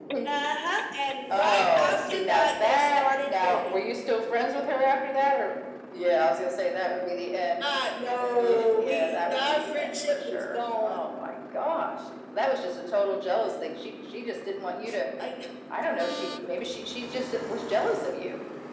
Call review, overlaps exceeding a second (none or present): present